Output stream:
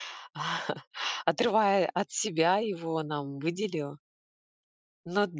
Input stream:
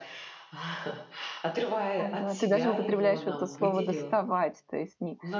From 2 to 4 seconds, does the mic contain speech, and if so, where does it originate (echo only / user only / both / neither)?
both